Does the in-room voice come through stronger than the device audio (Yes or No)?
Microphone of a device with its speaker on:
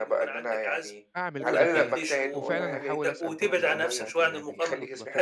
No